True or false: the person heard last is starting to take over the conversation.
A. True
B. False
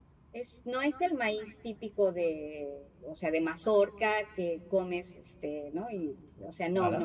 B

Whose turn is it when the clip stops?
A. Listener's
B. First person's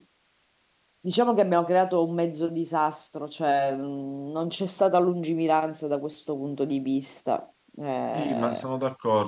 A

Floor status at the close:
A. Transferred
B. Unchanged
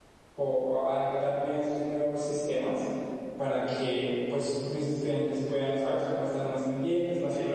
B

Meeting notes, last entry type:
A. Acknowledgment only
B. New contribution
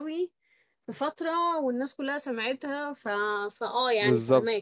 B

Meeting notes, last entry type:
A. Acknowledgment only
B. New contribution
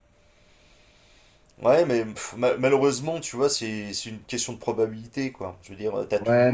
A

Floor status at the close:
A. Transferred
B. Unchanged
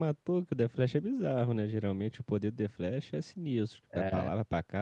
B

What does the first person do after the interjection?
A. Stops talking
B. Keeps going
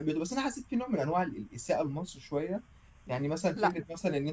B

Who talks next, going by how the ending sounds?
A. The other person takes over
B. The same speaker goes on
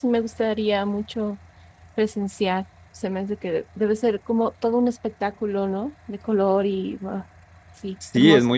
A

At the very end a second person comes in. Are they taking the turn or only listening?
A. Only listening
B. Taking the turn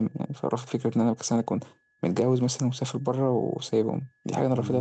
B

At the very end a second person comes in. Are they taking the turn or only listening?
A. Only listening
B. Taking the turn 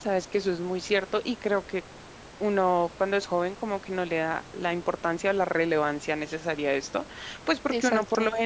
A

